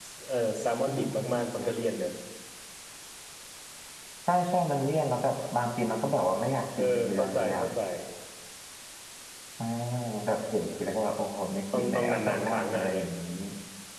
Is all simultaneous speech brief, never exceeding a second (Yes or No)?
No